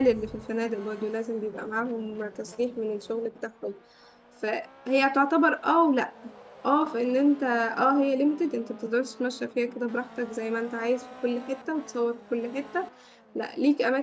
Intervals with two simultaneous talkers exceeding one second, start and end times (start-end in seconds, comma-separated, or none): none